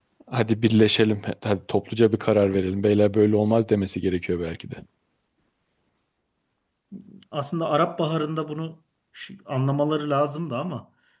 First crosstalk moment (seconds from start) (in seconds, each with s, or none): none